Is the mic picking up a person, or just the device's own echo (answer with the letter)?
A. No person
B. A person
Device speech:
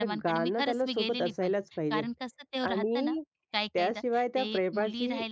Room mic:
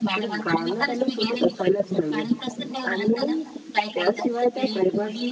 A